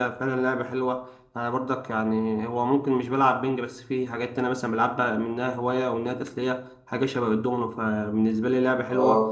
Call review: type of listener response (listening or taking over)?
taking over